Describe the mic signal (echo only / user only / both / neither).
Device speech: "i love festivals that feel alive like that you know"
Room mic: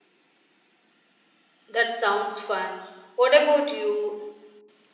user only